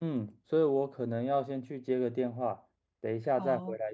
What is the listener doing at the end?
listening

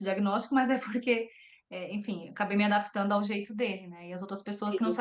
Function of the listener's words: listening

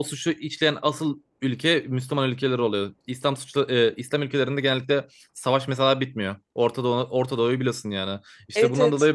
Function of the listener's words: listening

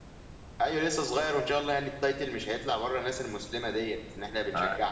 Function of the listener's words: taking over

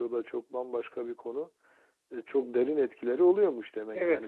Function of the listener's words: taking over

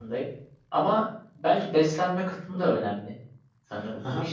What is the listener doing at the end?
taking over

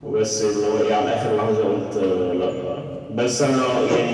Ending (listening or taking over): listening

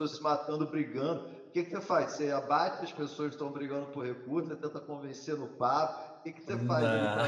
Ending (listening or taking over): listening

